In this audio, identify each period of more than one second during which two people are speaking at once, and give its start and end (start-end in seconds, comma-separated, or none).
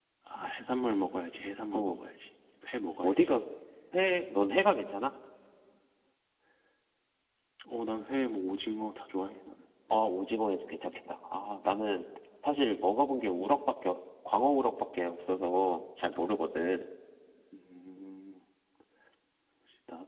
none